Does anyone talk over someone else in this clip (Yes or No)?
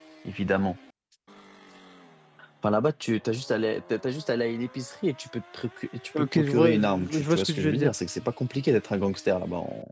Yes